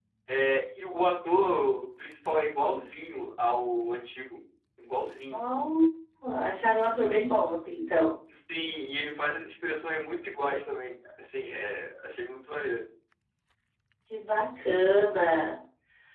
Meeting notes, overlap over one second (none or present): none